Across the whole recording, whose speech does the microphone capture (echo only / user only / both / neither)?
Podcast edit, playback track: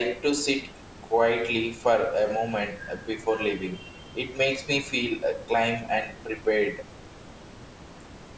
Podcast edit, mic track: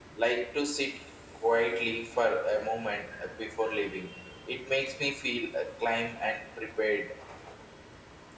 echo only